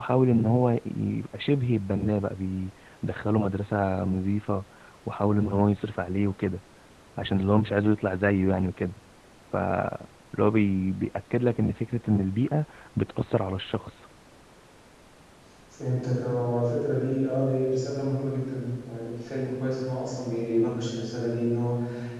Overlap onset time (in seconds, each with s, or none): none